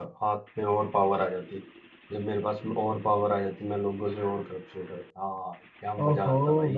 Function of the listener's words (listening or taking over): taking over